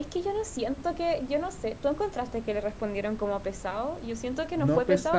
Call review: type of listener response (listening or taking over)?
taking over